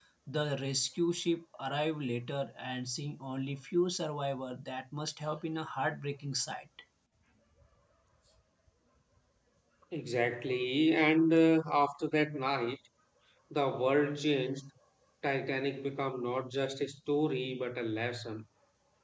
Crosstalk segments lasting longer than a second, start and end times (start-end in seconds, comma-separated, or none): none